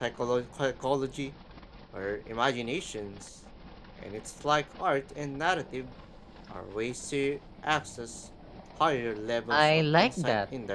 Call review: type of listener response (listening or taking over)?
taking over